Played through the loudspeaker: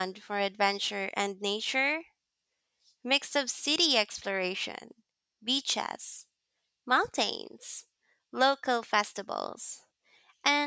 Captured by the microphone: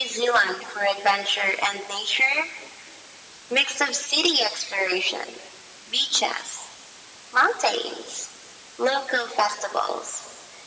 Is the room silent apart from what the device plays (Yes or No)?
Yes